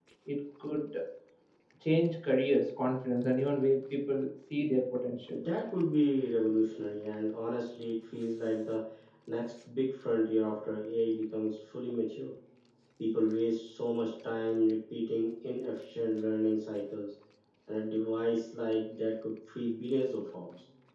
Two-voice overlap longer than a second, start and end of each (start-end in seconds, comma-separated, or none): none